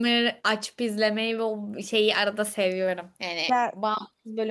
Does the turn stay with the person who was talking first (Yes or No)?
Yes